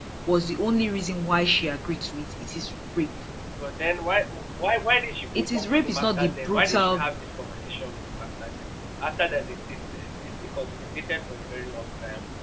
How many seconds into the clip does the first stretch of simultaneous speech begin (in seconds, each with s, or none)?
5.3 s